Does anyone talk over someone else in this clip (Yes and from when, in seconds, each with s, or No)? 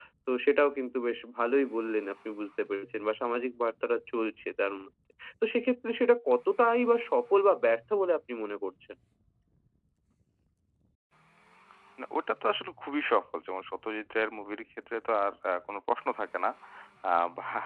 No